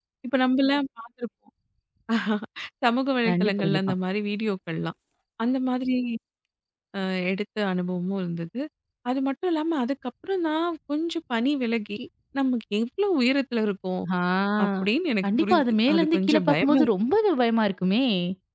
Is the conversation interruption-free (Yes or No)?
No